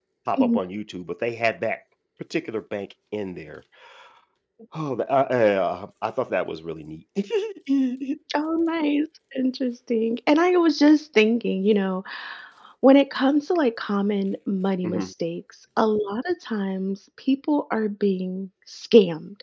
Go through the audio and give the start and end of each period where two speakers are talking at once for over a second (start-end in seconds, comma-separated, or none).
none